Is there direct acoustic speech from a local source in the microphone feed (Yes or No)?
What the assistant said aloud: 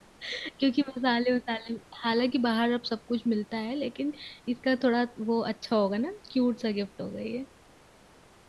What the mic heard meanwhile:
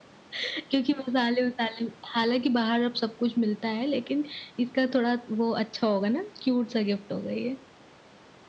No